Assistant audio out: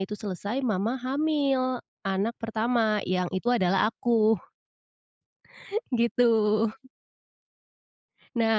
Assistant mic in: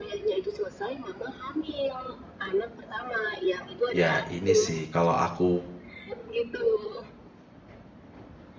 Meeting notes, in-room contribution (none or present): present